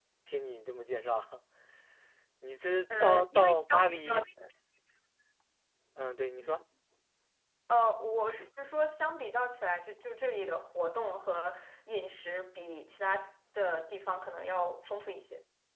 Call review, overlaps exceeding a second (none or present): present